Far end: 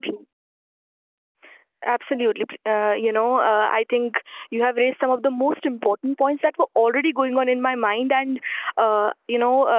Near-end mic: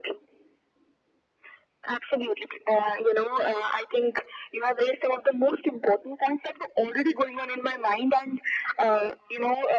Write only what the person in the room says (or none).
none